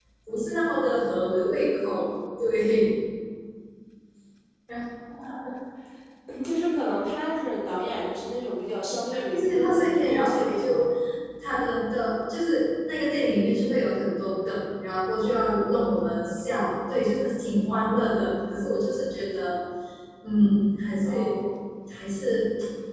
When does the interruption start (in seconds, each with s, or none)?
9.3 s